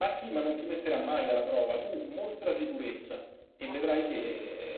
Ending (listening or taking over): listening